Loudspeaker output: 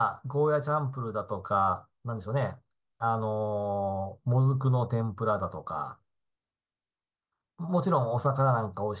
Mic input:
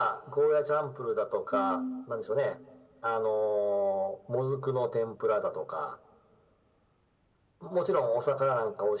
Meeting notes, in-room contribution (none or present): present